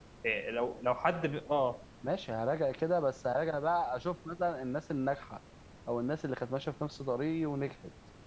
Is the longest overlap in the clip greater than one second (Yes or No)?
No